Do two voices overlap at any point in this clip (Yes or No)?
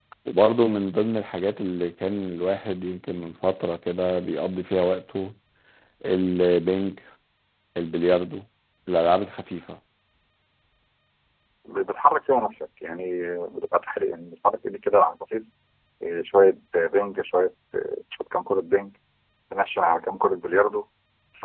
No